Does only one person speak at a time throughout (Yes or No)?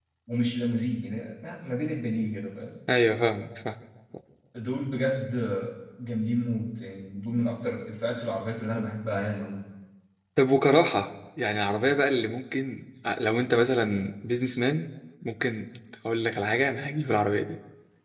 Yes